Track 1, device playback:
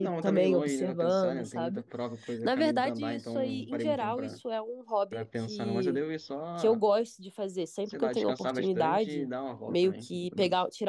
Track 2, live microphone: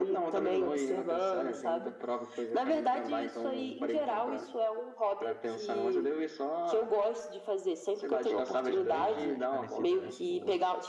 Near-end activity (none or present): present